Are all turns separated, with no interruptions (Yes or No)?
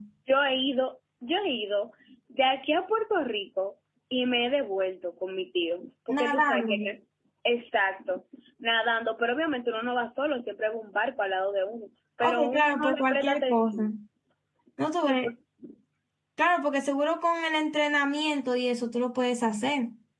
No